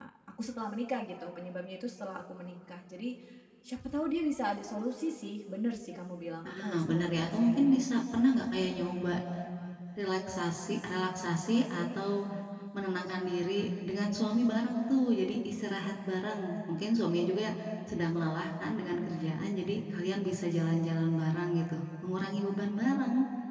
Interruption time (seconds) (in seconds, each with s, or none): 6.4 s